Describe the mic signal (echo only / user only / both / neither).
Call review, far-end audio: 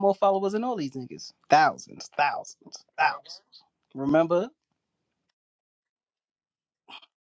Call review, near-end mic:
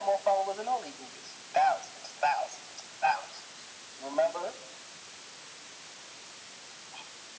echo only